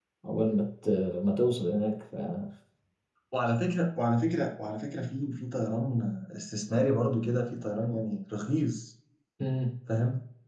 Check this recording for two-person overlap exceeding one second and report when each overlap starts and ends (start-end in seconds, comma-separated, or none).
none